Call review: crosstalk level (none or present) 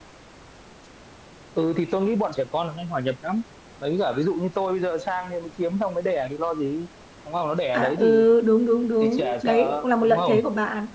present